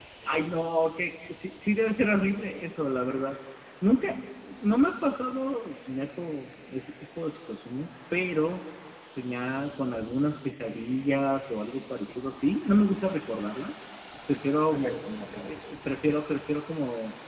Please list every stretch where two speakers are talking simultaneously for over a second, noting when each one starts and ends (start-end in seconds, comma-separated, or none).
none